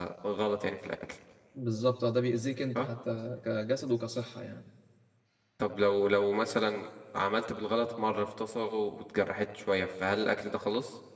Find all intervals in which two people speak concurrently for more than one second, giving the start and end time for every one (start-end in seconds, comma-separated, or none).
none